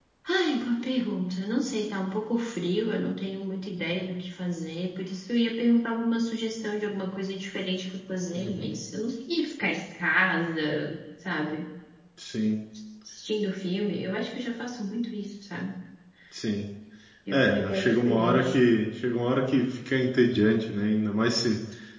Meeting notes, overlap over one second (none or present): present